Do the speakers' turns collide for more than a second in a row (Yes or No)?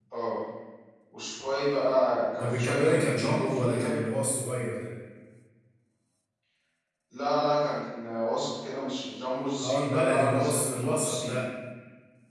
Yes